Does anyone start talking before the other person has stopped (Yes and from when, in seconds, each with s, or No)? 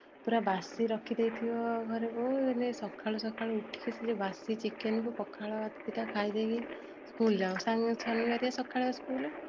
No